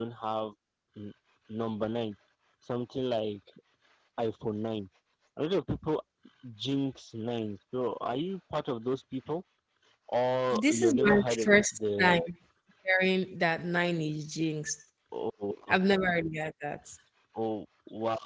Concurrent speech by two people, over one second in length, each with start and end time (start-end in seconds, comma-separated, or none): 10.5-12.2